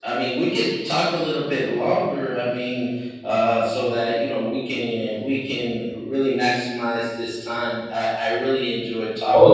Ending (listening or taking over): taking over